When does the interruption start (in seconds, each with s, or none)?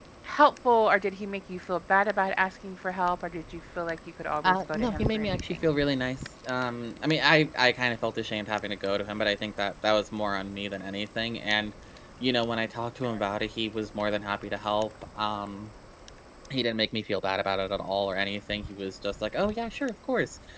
4.4 s